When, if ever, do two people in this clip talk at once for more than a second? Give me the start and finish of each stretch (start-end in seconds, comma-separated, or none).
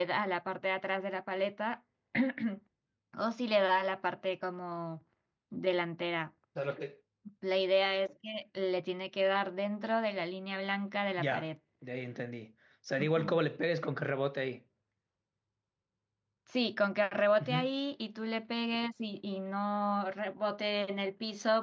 none